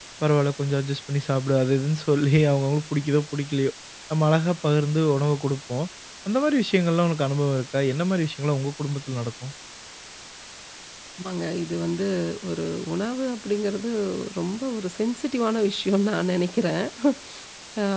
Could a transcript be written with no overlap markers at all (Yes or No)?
Yes